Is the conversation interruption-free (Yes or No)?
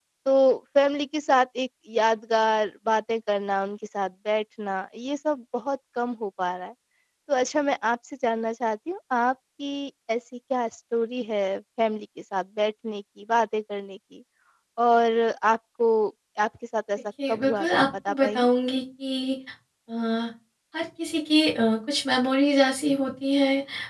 No